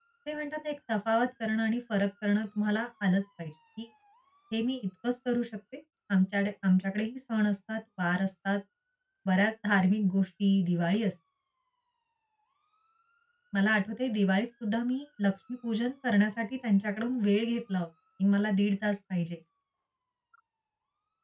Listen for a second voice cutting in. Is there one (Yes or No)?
No